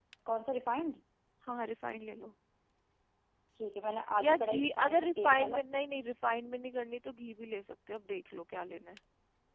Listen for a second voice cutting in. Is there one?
Yes, from 4.2 s

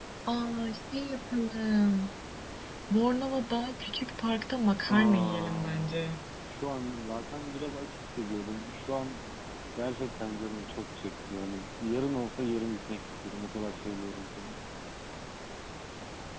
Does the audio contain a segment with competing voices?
Yes, from 4.9 s

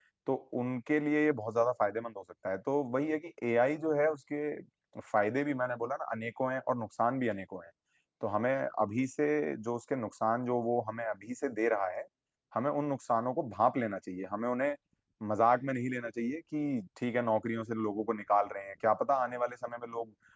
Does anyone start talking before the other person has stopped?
No

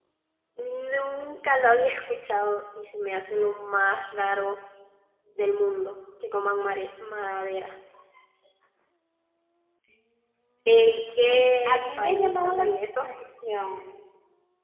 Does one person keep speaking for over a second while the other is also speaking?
Yes, from 11.3 s

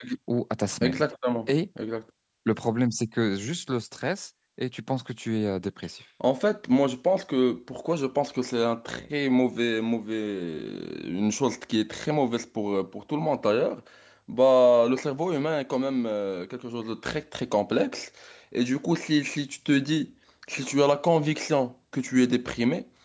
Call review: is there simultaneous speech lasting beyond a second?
No

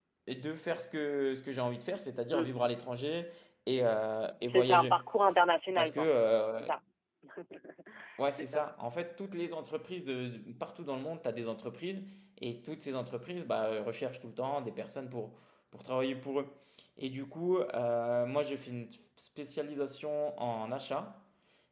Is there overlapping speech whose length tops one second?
No

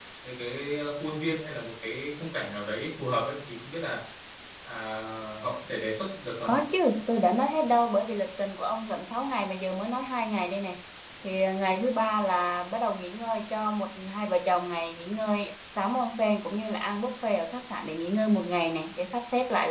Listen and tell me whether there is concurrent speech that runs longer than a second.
No

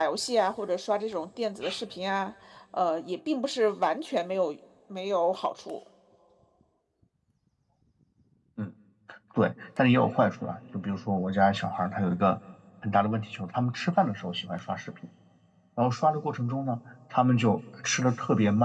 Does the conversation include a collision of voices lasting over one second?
No

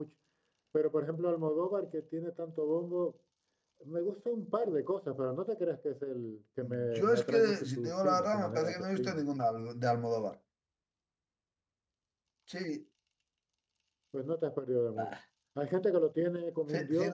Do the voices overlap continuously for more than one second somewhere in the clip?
Yes, from 6.9 s

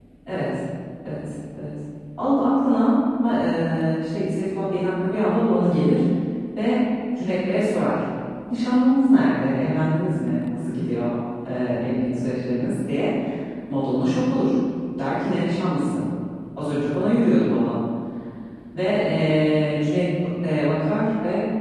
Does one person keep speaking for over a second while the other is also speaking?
No

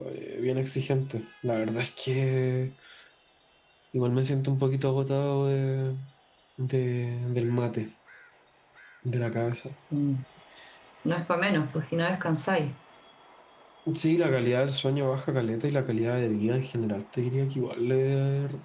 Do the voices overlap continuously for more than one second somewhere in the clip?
No

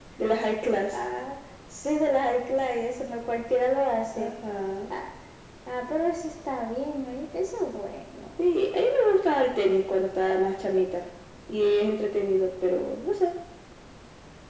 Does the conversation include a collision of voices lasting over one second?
No

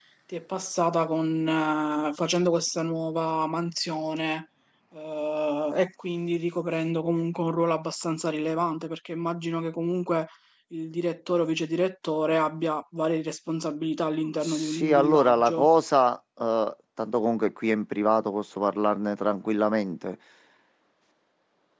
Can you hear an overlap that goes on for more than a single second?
Yes, from 14.4 s

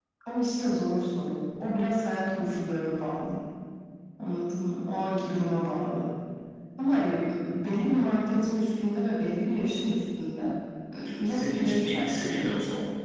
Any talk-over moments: Yes, from 11.1 s

